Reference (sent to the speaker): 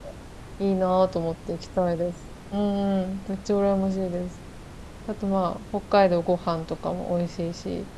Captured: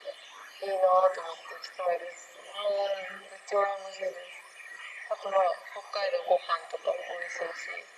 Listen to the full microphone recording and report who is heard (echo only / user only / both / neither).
echo only